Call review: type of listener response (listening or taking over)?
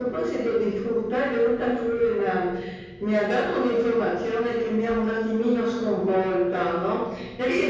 listening